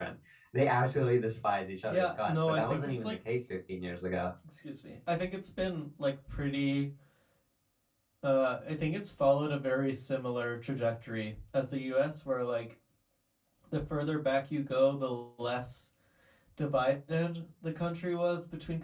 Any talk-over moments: Yes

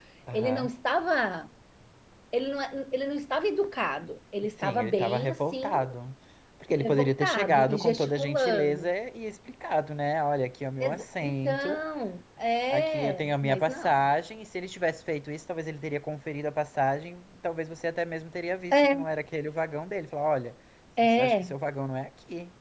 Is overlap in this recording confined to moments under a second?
No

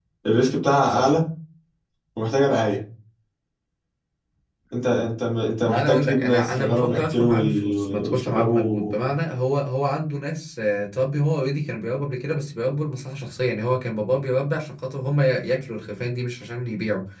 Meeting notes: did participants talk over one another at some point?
Yes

